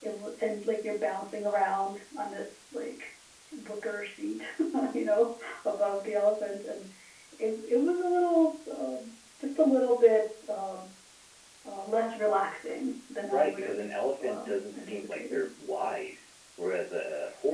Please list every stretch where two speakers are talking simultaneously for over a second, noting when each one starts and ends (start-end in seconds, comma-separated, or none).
14.2-15.5